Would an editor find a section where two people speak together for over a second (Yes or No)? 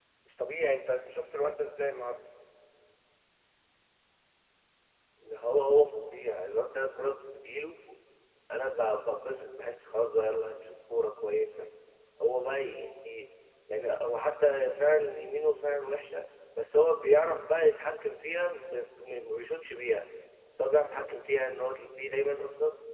No